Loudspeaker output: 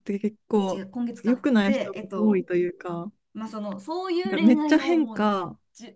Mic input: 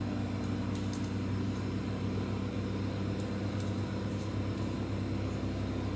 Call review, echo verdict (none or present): none